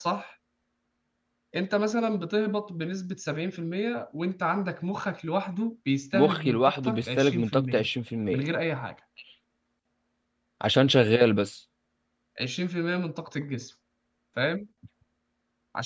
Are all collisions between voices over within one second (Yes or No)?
No